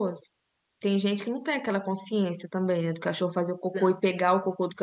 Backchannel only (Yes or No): Yes